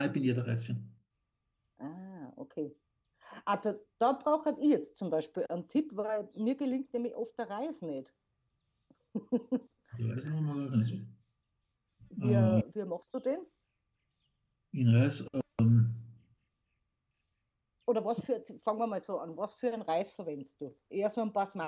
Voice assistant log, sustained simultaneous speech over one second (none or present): none